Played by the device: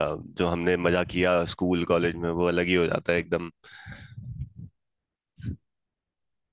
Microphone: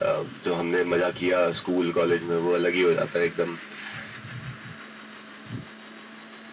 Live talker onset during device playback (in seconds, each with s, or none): none